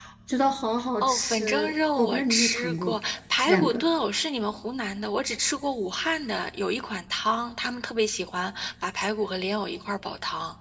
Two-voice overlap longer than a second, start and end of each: 1.0-3.0

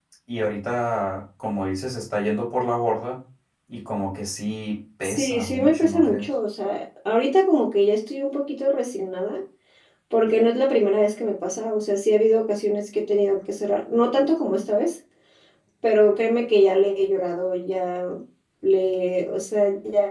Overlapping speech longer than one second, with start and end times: 5.0-6.3

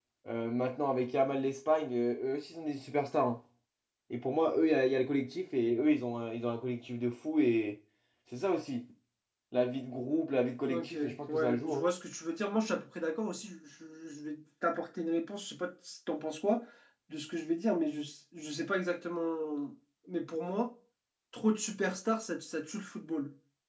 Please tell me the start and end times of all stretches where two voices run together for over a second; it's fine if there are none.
10.7-11.9

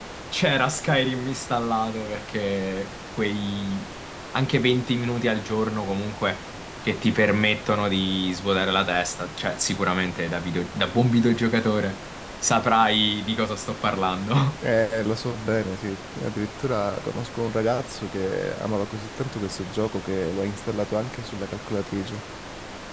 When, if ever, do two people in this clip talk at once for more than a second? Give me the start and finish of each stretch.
none

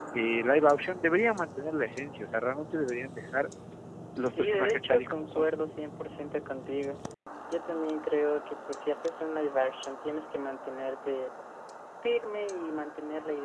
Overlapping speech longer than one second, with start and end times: 4.2-5.4

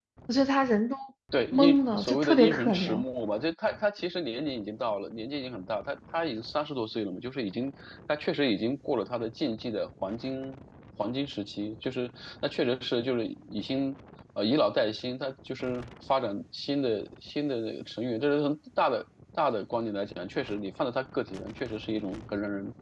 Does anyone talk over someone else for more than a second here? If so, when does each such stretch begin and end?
1.5-3.0

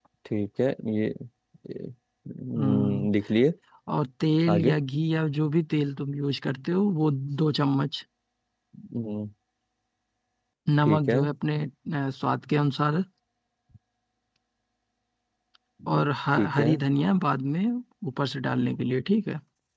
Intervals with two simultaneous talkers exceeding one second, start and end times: none

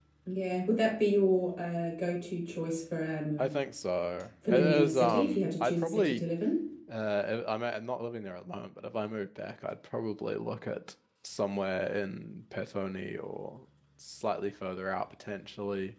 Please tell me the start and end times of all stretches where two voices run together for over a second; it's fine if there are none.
4.5-6.2

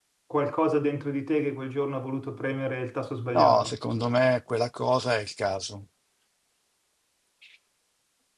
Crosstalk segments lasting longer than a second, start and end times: none

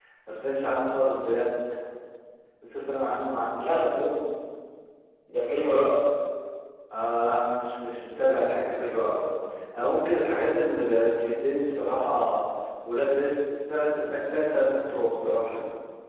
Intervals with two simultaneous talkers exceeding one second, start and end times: none

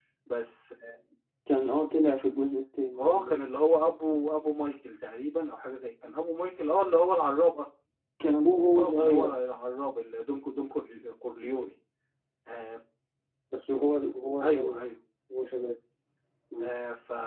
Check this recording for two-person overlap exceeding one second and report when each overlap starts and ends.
none

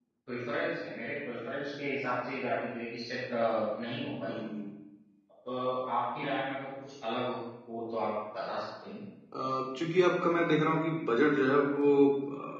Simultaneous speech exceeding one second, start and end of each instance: none

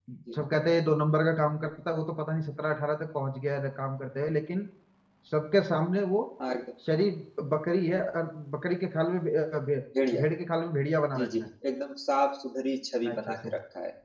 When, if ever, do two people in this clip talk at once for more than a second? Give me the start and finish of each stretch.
none

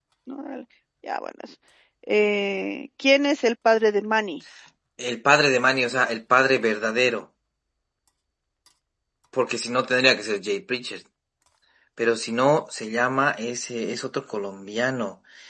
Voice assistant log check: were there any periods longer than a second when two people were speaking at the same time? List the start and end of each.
none

